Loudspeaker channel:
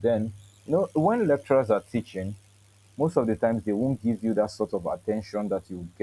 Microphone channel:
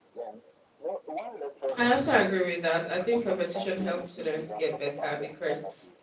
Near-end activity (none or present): present